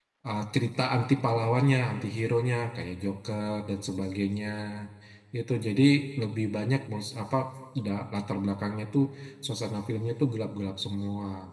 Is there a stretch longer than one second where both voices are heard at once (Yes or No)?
No